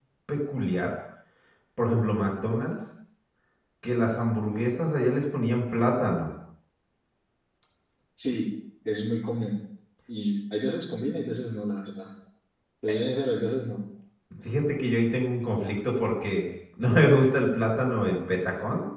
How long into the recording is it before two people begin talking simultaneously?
none

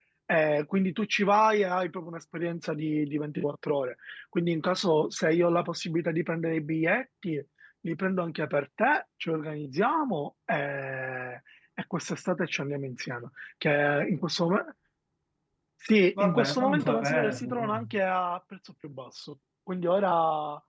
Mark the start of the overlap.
16.2 s

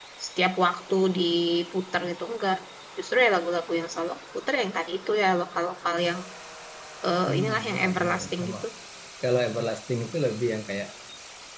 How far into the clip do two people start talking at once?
7.3 s

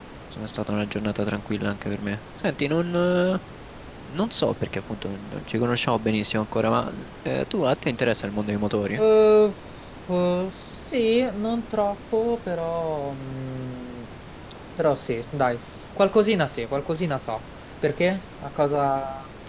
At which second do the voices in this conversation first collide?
none

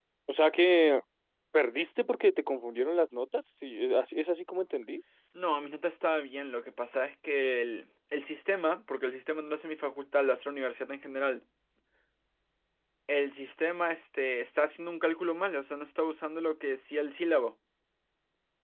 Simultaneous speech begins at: none

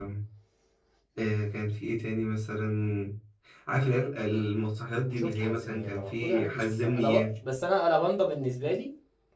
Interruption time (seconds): 5.0 s

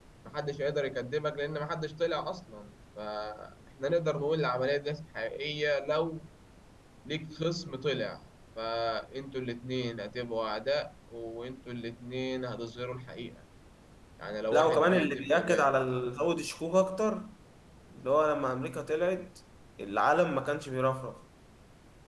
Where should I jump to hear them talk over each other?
14.5 s

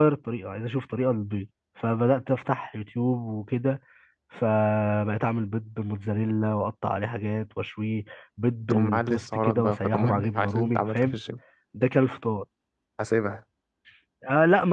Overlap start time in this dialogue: 8.6 s

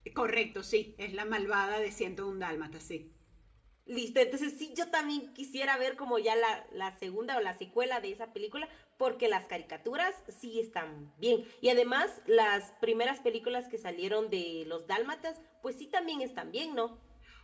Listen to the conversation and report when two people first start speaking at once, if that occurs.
none

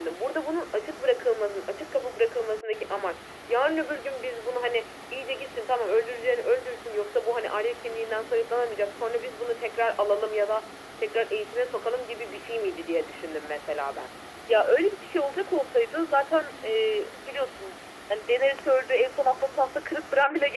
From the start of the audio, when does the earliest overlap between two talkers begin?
none

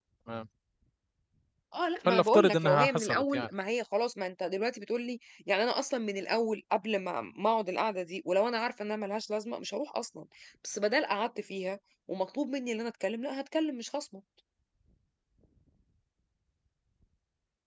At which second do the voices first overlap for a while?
2.0 s

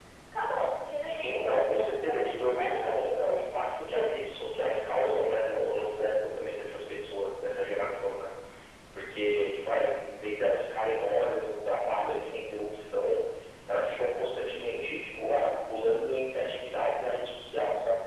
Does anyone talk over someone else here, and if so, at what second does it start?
1.0 s

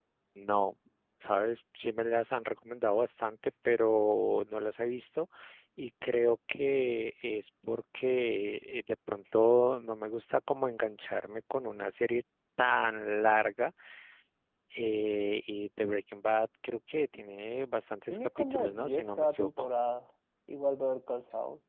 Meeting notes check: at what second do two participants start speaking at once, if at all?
18.1 s

